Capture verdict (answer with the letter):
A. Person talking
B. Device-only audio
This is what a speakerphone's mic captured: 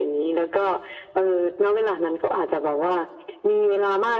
B